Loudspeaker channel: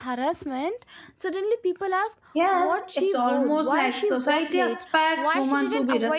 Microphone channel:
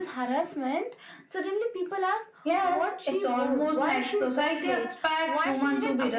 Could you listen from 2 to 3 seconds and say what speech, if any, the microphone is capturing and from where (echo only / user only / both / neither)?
echo only